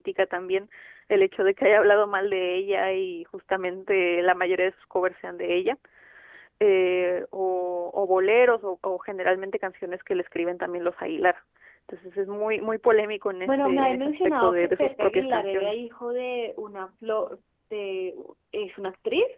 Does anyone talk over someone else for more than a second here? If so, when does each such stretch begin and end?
13.4-15.7

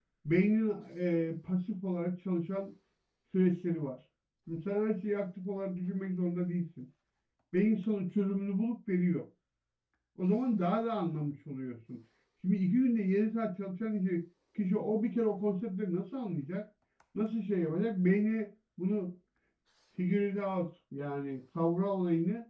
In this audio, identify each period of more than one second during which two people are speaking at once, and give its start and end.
none

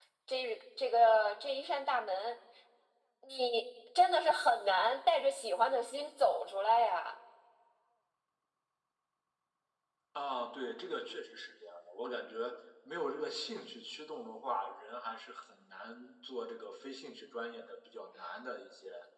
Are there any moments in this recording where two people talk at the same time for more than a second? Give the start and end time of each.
none

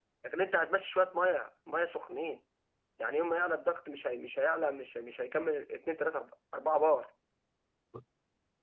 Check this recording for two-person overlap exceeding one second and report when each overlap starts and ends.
none

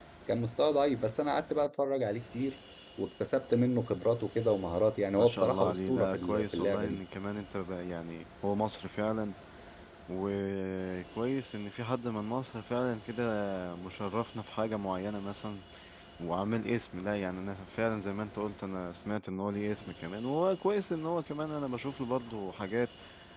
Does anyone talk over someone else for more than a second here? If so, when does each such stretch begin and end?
5.2-7.0

